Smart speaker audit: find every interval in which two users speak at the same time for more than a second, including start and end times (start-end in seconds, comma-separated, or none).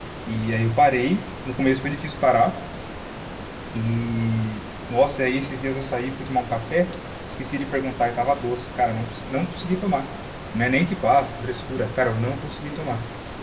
none